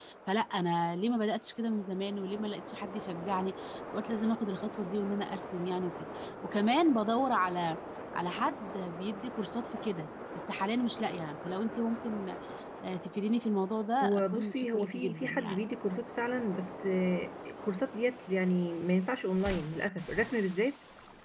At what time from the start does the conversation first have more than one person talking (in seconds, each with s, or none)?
14.0 s